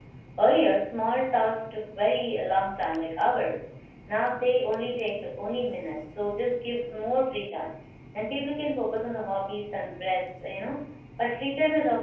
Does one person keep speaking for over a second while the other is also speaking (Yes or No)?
No